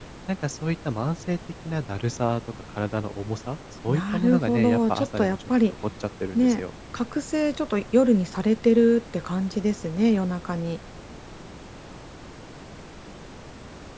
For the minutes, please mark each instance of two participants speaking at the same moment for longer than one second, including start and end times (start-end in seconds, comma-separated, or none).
3.9-5.5